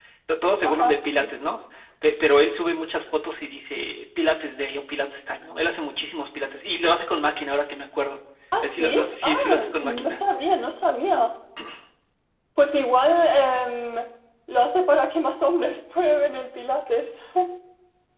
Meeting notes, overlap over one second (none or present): present